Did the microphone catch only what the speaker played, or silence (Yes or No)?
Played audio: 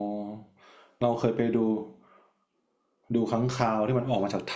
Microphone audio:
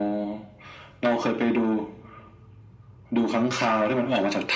Yes